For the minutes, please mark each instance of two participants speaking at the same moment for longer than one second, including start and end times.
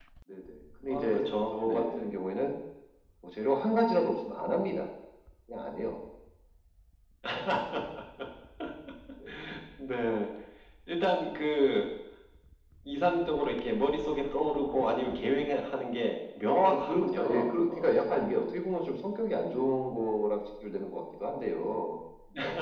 0.9-2.1, 16.6-18.2

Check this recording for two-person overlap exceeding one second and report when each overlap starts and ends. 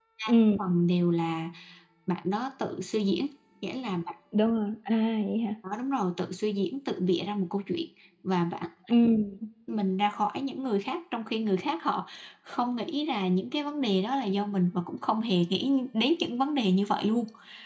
none

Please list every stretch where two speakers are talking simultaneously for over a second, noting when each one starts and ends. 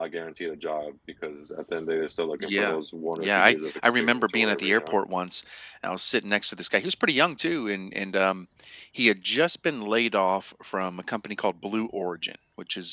3.2-4.9

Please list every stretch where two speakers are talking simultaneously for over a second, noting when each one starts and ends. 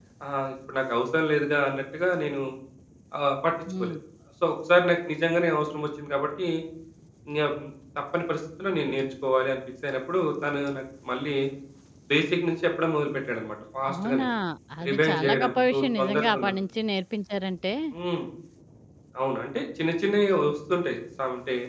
14.9-16.5

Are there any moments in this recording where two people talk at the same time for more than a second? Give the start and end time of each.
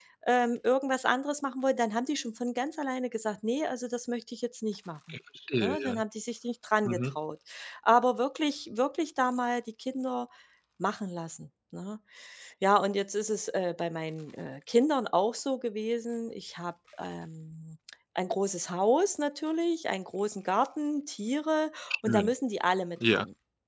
none

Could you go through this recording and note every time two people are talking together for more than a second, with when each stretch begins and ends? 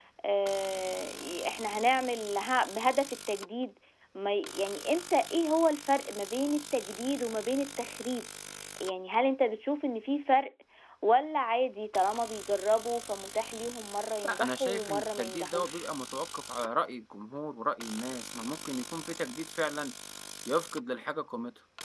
14.2-15.8

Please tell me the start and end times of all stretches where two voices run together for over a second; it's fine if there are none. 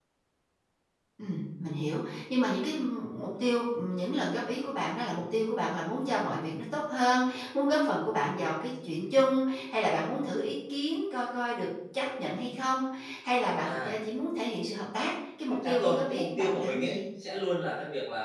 15.5-17.0

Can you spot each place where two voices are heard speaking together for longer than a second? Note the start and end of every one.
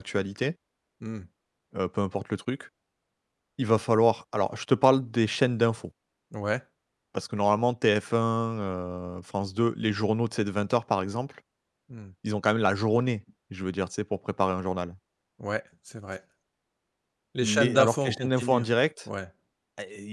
17.4-18.7

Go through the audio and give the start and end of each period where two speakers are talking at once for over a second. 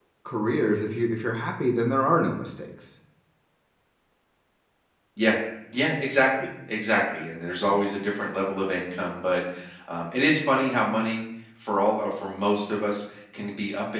none

